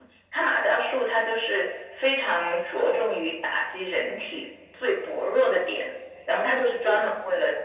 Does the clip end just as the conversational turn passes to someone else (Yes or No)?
No